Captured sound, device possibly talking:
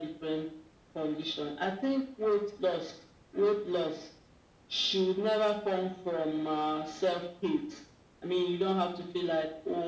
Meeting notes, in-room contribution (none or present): none